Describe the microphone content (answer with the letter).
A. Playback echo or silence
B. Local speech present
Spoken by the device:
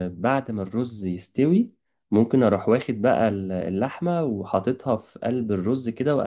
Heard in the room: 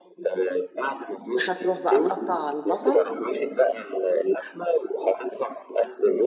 B